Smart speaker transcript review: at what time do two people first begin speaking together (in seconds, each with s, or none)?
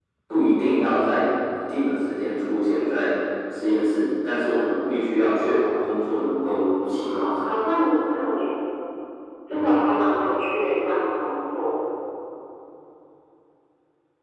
6.3 s